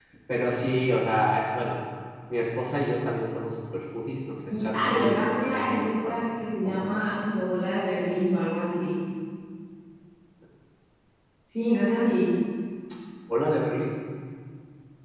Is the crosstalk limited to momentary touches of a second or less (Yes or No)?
No